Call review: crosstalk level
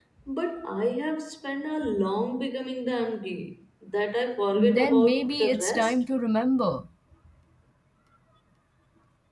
present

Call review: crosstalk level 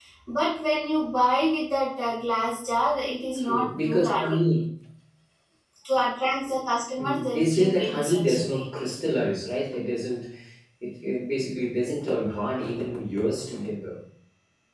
present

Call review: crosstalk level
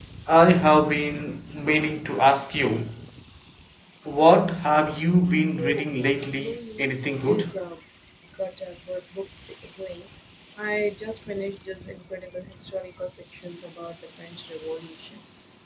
present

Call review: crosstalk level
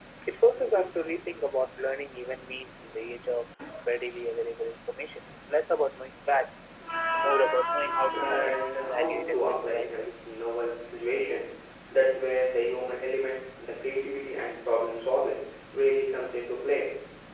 present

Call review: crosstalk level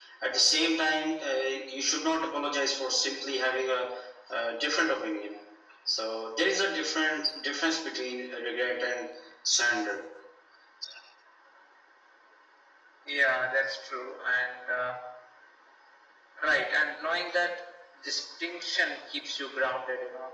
none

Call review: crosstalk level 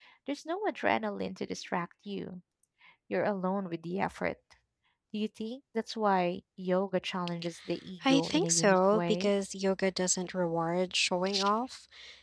present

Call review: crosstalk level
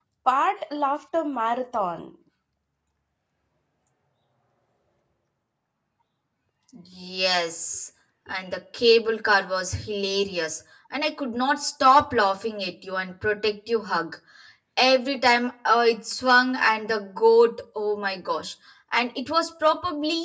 none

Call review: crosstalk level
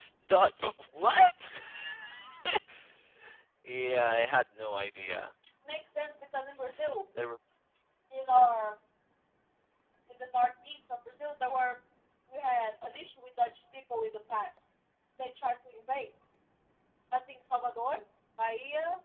none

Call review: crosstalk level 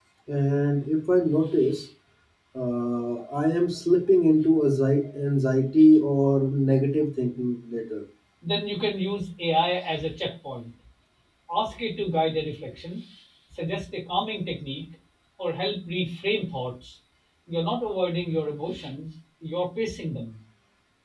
none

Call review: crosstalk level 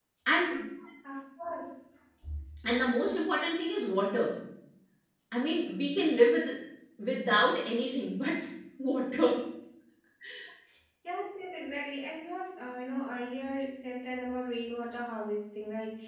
none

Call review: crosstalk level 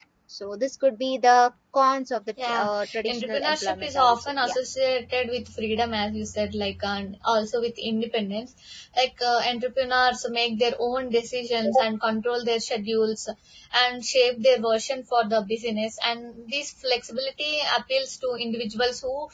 present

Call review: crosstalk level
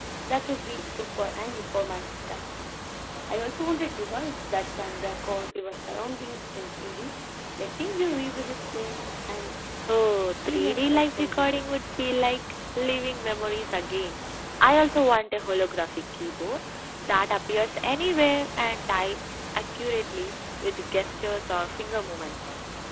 present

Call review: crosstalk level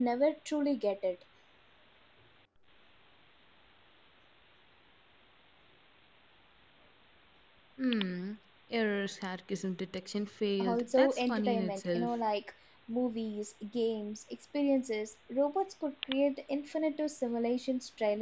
present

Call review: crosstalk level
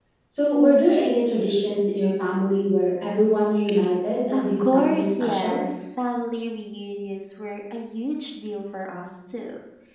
present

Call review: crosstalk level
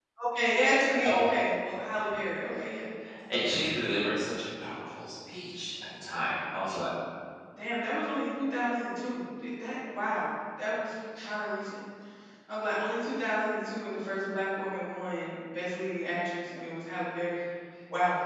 none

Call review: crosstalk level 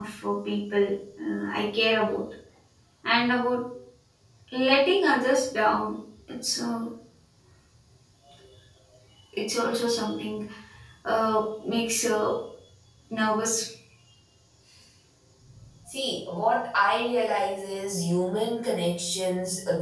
none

